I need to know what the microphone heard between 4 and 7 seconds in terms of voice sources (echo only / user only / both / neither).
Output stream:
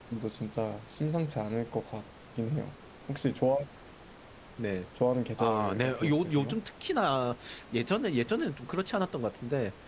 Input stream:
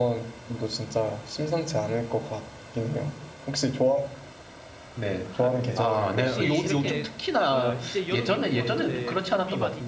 both